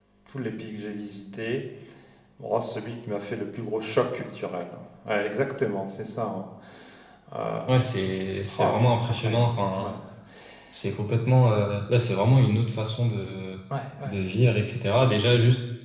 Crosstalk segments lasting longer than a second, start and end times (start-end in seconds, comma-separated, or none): 8.6-9.9